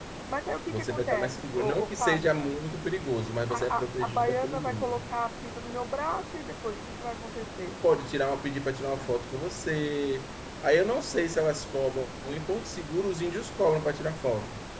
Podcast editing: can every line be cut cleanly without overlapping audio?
No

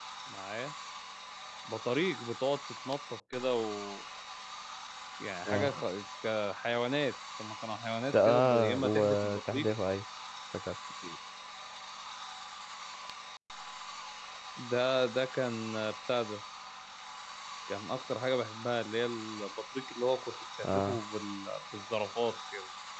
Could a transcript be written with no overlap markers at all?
No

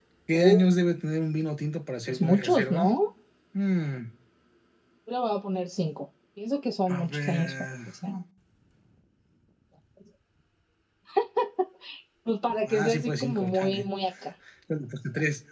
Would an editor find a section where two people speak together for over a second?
Yes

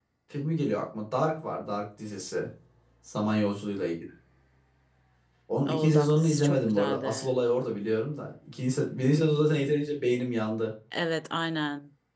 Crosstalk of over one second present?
Yes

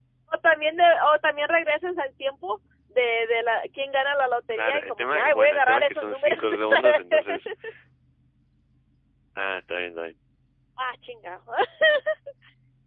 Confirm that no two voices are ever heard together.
No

